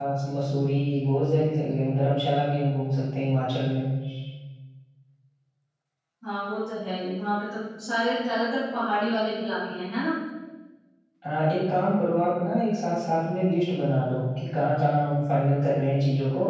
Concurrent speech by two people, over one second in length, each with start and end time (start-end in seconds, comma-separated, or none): none